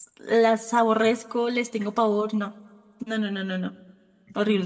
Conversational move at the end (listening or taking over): taking over